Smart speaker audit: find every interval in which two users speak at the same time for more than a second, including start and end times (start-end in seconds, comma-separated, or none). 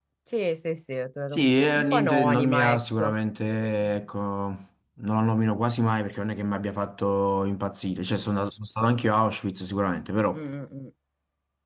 1.3-3.1